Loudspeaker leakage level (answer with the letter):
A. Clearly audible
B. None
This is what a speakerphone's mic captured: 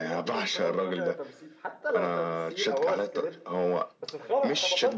A